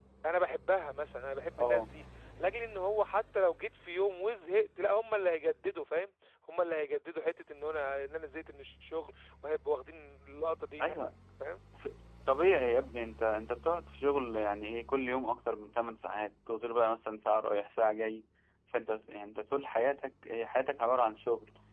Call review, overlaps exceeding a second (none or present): none